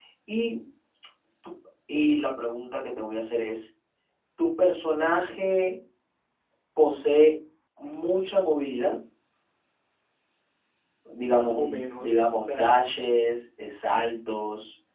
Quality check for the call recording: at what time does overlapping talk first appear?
11.2 s

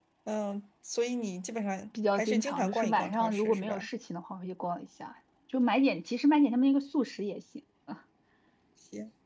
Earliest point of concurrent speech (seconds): 1.9 s

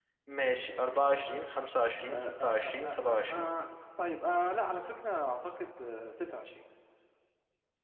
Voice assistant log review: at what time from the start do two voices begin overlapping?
2.1 s

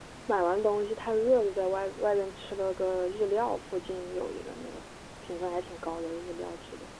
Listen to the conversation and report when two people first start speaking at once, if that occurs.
none

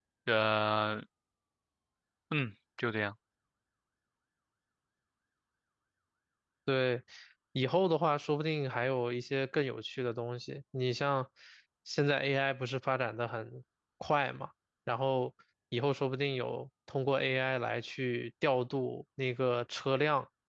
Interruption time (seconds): none

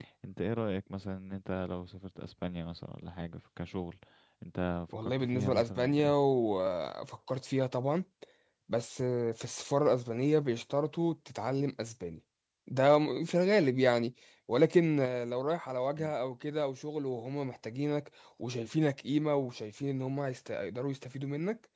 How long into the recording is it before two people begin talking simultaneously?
4.9 s

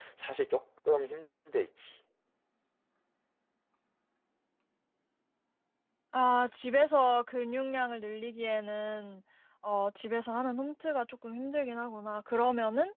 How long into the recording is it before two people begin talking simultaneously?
none

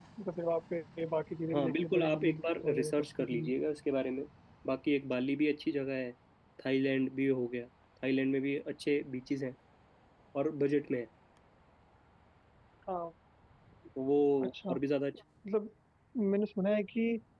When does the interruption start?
1.5 s

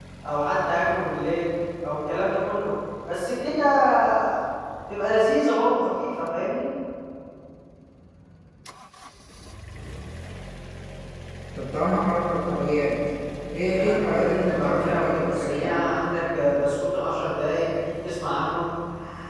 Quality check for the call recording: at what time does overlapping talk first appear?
13.6 s

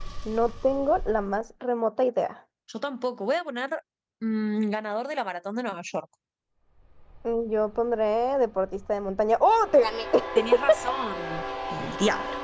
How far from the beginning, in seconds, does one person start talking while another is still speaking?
none

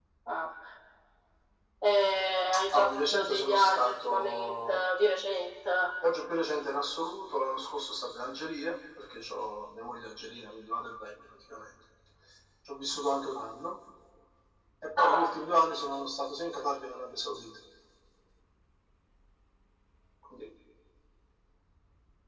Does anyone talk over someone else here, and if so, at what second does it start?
2.7 s

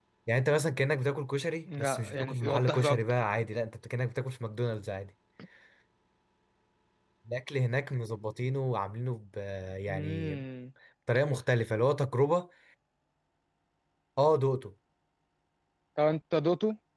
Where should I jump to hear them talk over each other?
1.8 s

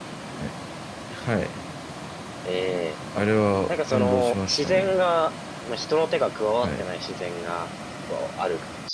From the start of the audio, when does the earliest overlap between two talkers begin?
3.7 s

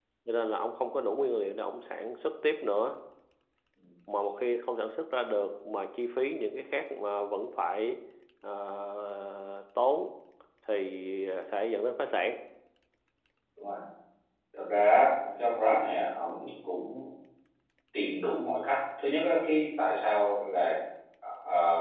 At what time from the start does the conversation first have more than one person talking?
none

